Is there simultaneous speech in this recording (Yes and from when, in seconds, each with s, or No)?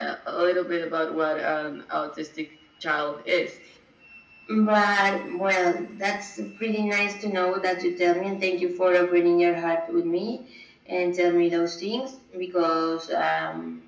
No